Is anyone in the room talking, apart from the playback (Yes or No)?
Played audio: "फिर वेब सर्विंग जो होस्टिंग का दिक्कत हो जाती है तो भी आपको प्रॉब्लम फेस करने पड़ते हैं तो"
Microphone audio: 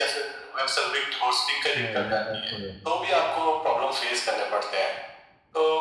Yes